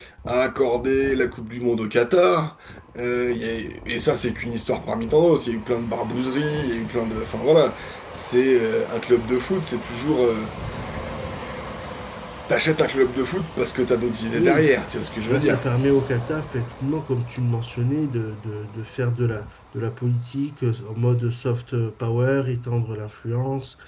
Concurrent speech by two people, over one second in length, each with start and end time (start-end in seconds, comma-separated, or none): none